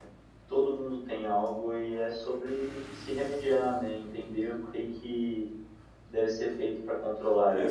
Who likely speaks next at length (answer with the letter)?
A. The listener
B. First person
A